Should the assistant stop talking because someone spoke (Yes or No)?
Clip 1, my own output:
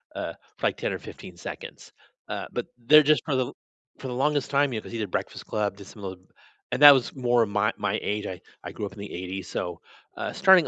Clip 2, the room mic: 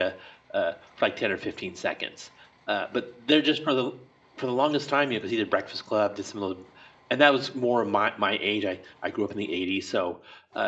No